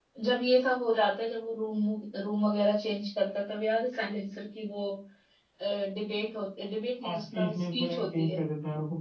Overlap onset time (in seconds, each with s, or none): 7.0 s